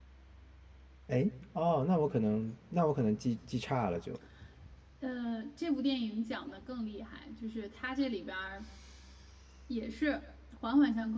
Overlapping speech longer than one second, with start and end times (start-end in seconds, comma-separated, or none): none